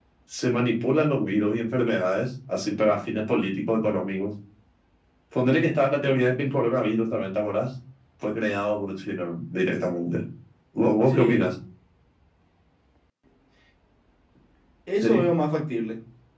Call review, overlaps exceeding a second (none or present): none